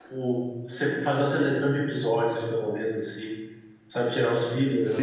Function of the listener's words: taking over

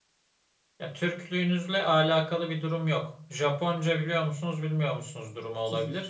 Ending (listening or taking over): listening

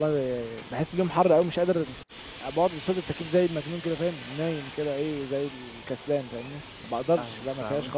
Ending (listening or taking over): taking over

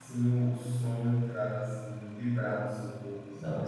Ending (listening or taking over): taking over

